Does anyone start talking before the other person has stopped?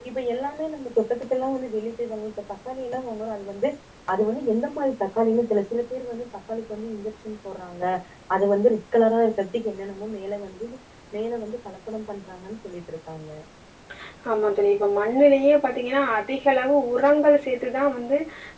No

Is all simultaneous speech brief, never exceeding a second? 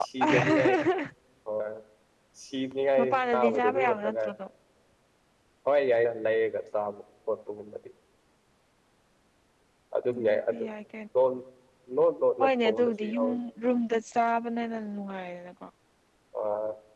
No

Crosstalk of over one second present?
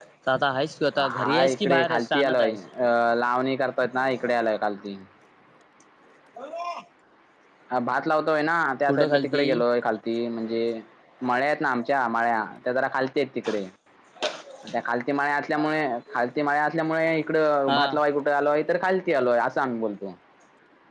Yes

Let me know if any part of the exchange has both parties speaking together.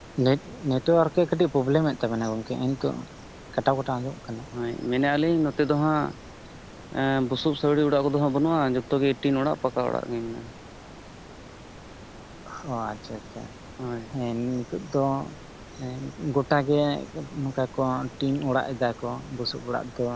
No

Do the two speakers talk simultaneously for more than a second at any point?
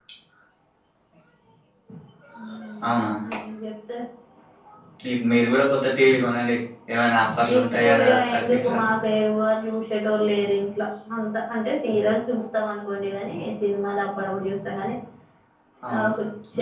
Yes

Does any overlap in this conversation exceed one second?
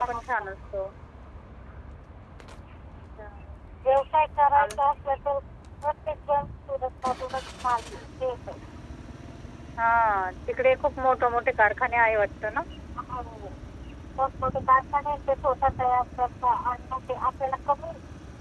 No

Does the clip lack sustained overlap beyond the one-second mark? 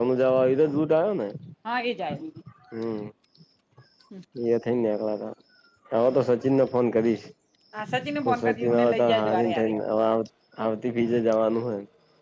No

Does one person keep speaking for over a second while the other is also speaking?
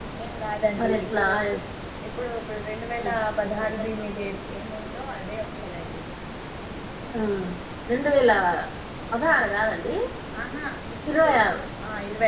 No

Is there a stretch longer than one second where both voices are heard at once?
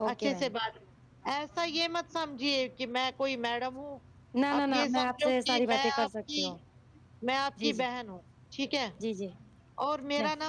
Yes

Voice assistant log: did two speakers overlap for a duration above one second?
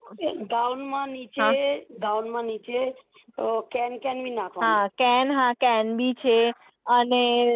No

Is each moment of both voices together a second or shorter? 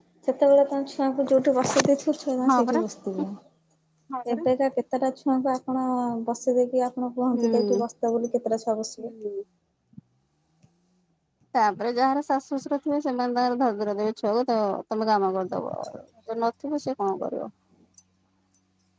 Yes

